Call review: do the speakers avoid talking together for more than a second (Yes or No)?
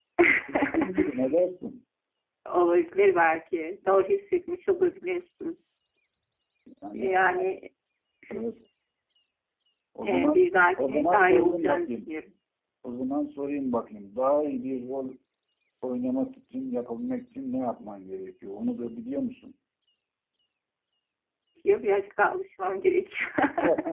No